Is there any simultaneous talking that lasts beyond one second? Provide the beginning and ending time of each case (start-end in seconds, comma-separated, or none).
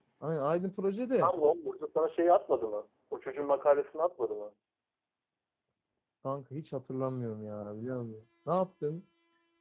none